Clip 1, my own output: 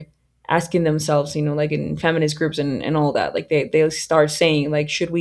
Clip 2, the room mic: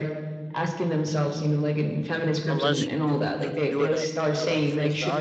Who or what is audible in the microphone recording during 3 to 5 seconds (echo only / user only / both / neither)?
both